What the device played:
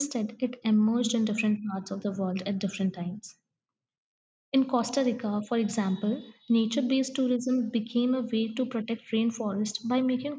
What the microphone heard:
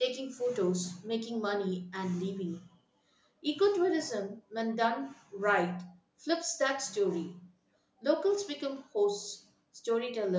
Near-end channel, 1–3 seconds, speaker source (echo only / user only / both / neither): user only